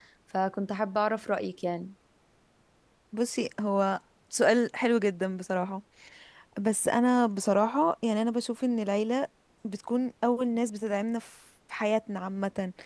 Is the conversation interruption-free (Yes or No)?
Yes